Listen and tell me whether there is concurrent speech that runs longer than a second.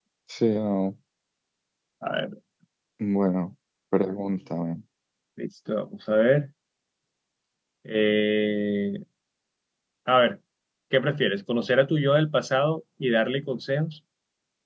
No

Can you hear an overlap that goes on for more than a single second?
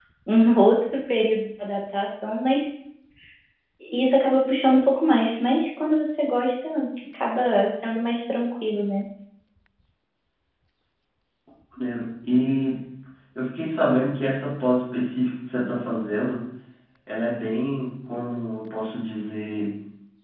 No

